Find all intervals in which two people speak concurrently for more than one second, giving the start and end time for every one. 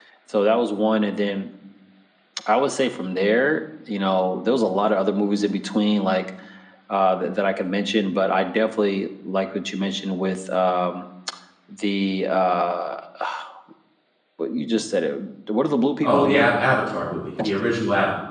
none

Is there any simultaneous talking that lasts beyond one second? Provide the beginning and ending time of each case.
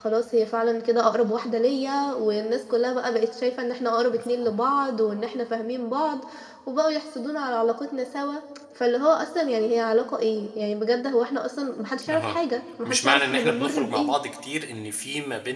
12.8-14.1

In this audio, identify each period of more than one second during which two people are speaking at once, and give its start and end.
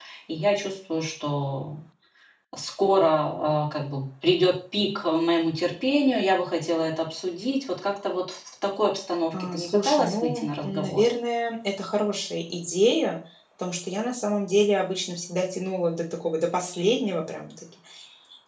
9.4-11.0

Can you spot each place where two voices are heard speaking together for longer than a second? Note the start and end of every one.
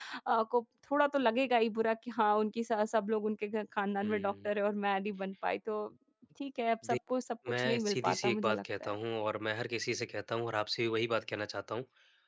7.5-8.9

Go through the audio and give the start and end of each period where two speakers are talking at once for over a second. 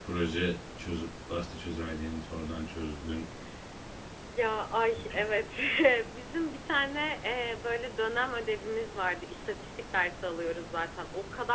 none

